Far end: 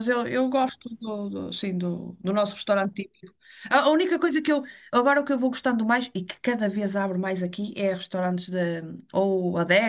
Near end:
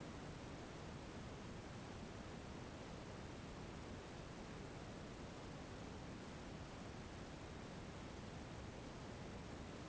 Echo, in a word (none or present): none